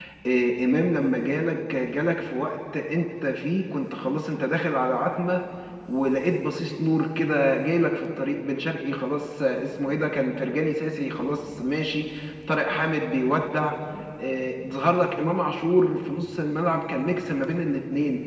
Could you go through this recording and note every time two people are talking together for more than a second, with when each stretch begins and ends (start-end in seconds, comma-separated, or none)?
none